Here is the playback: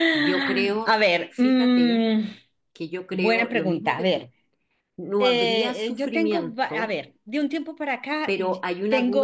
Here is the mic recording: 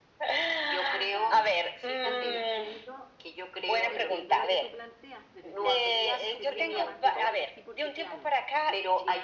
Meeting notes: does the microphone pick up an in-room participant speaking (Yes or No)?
Yes